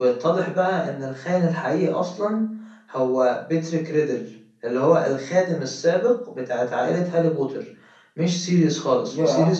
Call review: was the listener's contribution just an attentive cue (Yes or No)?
No